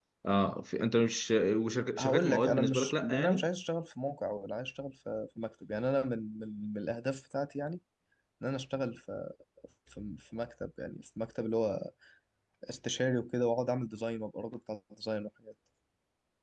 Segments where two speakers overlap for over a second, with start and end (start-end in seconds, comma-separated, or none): 2.0-3.5